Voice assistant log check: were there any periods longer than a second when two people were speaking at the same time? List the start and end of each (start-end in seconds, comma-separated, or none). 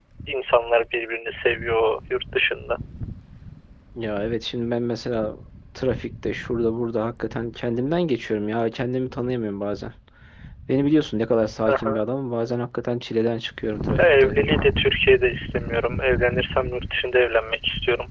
none